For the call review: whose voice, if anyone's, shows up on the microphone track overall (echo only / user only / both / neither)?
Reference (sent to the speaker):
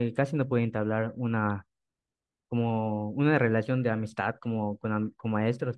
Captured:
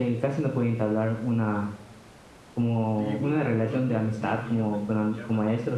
both